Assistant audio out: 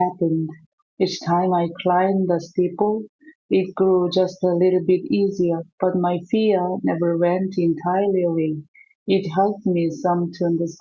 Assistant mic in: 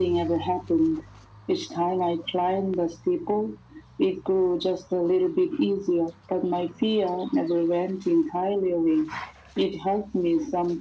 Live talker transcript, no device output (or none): none